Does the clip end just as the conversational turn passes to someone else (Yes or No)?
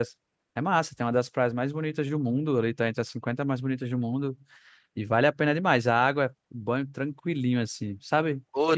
Yes